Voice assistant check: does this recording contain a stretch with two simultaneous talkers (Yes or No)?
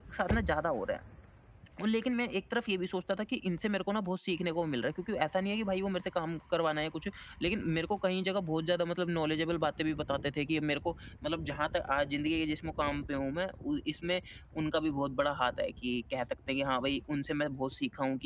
No